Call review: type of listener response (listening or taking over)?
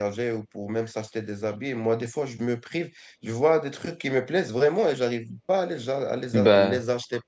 listening